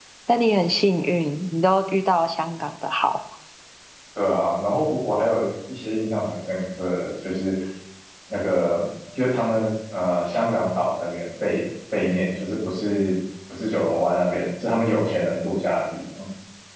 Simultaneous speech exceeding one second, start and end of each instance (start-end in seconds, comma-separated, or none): none